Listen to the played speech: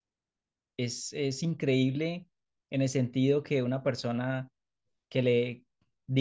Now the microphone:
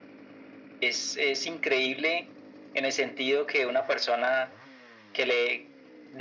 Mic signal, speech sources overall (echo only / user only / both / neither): echo only